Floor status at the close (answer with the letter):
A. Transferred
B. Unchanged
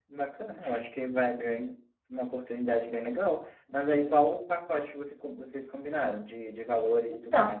A